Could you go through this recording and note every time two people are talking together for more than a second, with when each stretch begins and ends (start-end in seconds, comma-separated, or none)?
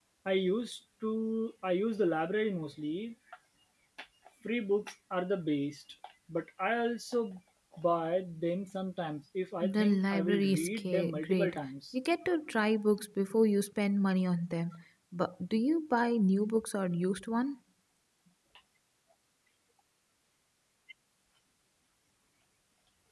9.6-11.6